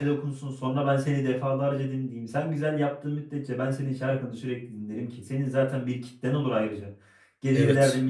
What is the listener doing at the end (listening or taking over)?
listening